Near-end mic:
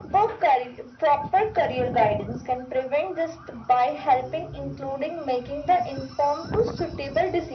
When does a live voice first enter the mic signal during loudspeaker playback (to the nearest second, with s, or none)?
none